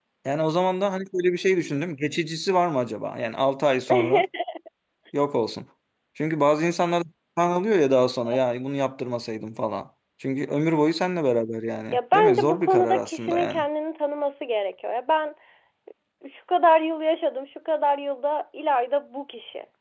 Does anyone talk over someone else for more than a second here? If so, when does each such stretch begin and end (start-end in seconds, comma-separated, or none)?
11.9-13.6